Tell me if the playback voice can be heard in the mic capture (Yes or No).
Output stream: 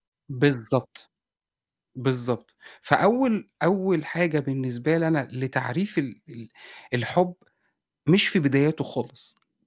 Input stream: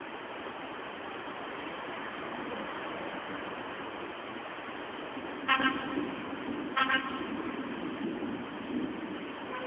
No